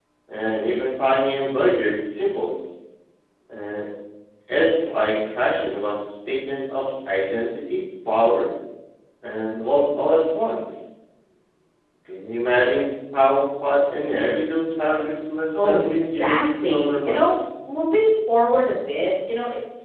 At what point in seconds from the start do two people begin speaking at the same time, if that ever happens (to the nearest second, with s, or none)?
16 s